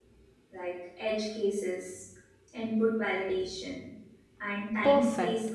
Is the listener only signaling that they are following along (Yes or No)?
No